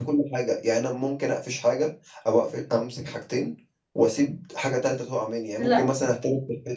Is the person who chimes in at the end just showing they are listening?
Yes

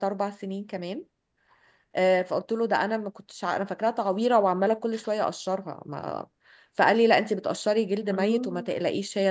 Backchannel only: Yes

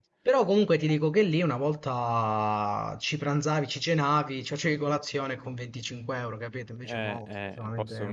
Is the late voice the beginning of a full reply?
Yes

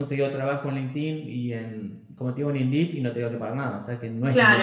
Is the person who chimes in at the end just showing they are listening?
No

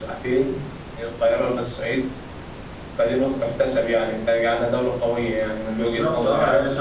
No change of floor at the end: No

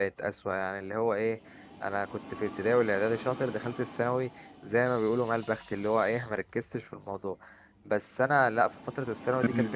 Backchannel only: Yes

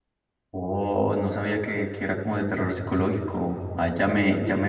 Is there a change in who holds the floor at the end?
No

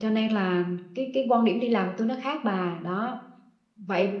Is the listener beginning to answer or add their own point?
No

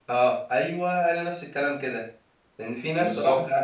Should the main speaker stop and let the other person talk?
No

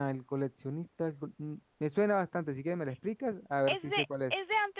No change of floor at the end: No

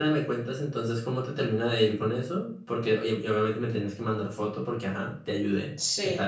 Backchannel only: No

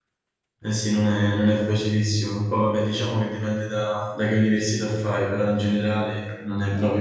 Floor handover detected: Yes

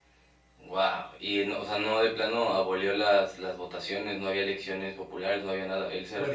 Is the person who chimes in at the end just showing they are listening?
No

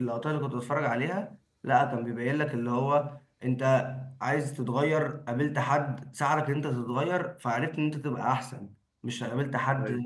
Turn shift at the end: No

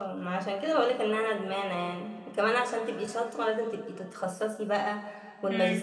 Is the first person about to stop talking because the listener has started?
No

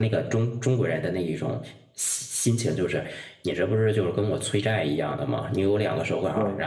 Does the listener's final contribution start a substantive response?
No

